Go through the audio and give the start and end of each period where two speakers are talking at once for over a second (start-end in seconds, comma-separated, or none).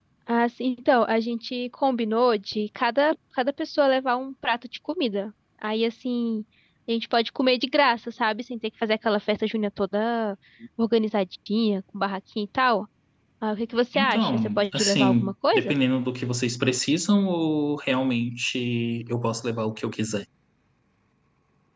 13.9-15.7